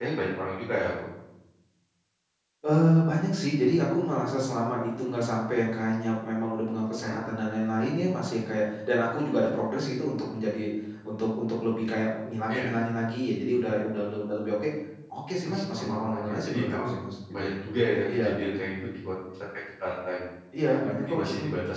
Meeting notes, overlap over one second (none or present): present